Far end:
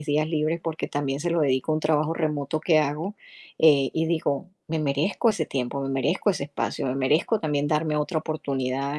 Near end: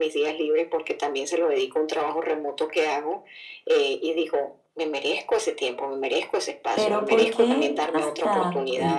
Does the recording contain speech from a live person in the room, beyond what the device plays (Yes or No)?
Yes